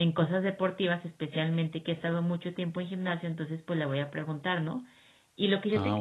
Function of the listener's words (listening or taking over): listening